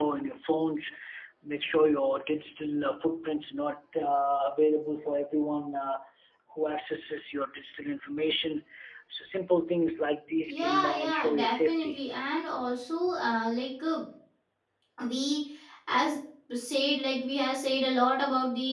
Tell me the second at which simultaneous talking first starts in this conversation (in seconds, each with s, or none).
10.5 s